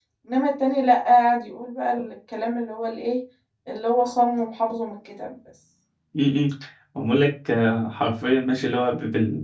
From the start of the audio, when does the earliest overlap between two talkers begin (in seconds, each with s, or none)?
none